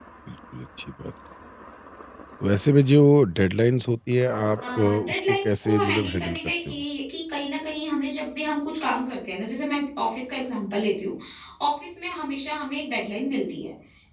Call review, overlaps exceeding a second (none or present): present